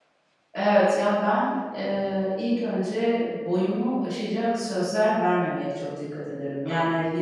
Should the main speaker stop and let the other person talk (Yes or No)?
No